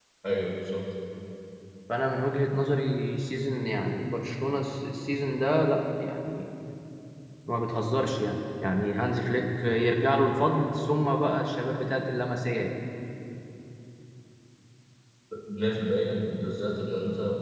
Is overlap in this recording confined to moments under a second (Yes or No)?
Yes